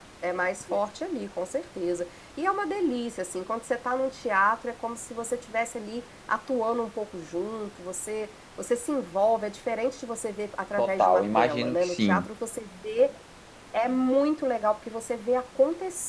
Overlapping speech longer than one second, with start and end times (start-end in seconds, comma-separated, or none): 10.8-12.3